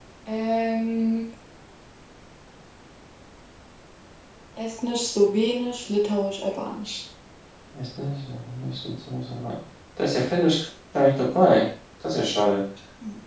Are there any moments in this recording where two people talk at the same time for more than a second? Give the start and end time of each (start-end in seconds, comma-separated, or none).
none